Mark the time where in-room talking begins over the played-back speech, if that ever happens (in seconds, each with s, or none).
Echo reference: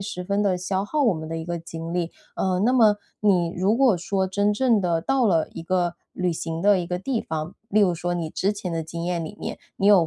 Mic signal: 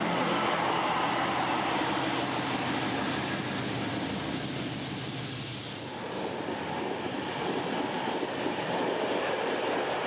none